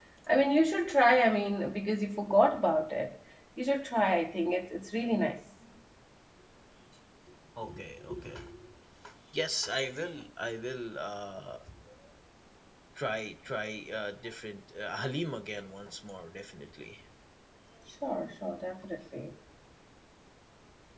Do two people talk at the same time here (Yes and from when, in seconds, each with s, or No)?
No